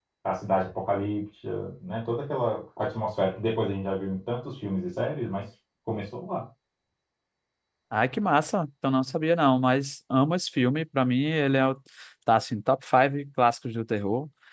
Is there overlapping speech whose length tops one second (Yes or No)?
No